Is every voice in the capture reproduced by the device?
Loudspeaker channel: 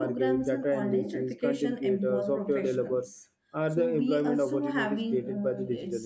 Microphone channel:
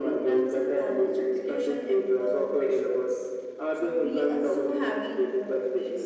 Yes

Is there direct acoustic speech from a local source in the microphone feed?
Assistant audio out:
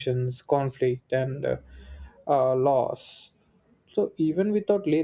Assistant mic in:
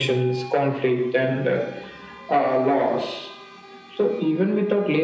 No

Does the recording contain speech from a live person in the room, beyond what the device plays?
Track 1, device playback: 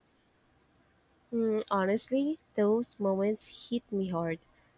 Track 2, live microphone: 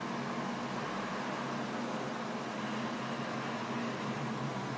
No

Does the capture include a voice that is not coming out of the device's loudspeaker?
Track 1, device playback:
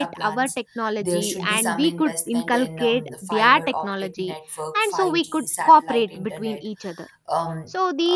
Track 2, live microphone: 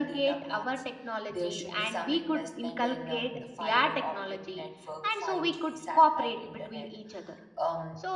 No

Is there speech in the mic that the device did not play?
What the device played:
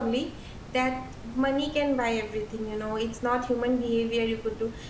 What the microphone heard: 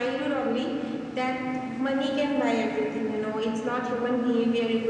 No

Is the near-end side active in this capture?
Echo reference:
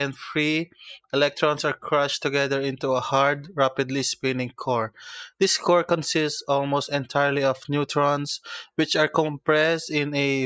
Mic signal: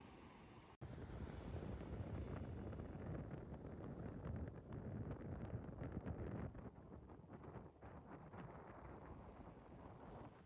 No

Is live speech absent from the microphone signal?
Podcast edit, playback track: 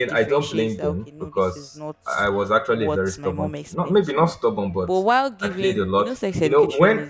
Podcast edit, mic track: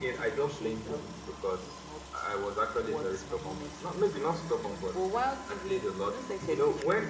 Yes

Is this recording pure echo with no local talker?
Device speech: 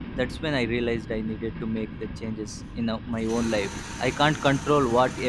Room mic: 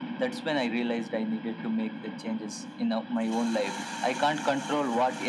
Yes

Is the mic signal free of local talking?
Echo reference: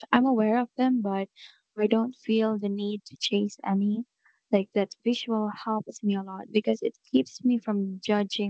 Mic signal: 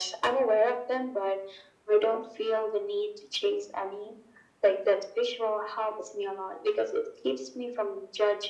Yes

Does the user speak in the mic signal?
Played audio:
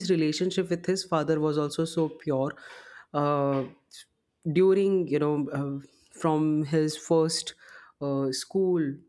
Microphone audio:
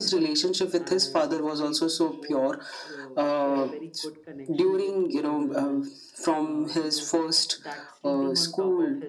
Yes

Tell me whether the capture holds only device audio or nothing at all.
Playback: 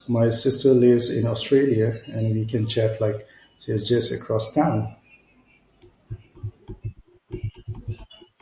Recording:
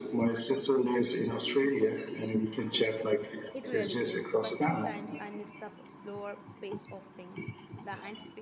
No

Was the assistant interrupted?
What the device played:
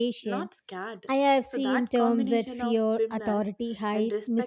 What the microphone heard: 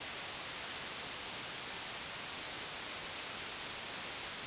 No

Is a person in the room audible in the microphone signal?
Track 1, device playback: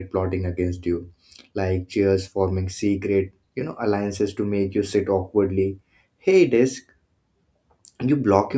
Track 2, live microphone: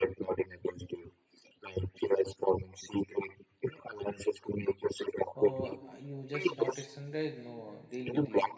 Yes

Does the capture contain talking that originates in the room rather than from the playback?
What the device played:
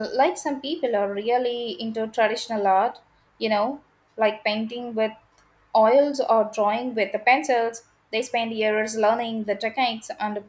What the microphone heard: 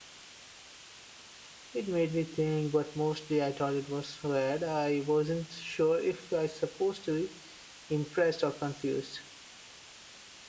Yes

